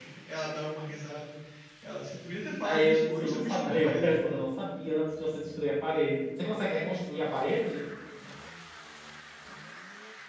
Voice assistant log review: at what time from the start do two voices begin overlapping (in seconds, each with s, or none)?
2.6 s